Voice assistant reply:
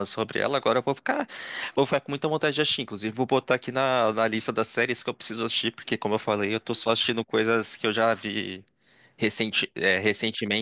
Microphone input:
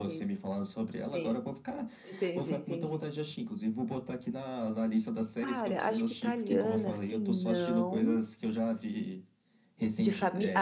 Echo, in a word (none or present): present